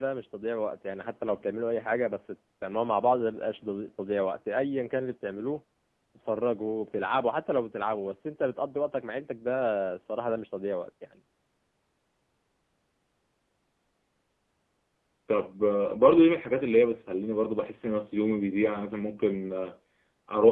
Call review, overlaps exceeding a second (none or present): none